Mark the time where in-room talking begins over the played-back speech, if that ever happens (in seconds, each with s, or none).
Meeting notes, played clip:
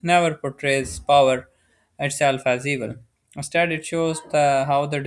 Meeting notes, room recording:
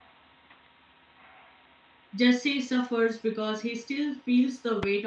2.1 s